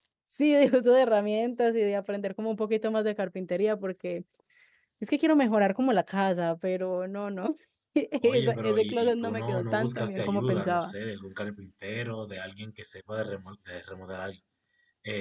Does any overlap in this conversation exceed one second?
Yes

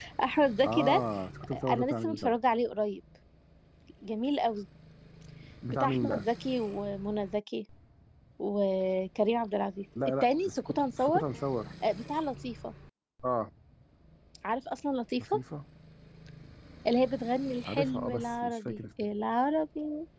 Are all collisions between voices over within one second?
No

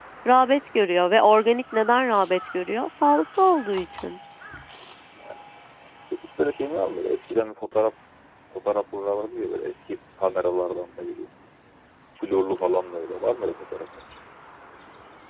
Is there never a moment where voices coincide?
Yes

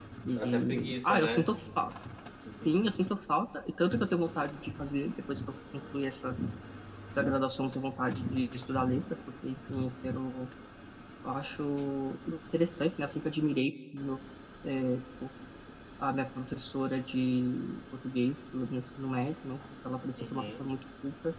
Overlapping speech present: Yes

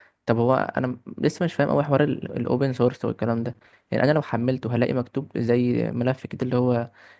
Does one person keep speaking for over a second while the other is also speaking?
No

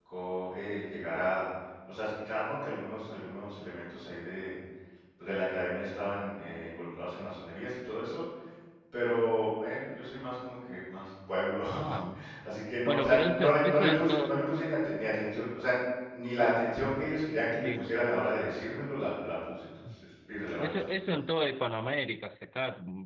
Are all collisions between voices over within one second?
No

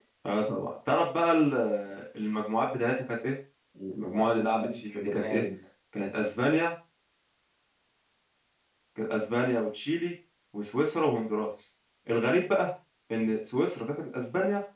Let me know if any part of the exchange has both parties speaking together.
Yes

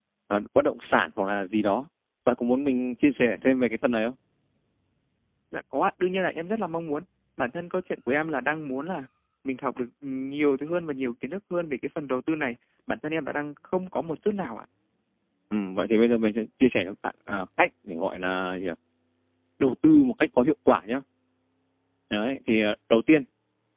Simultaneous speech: No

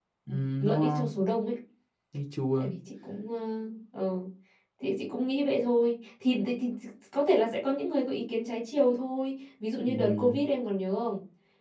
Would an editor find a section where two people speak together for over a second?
No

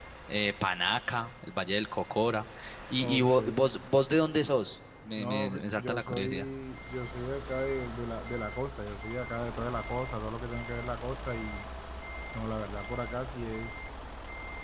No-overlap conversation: No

